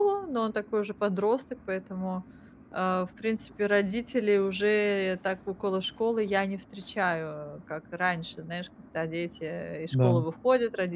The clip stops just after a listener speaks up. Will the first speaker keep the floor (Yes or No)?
Yes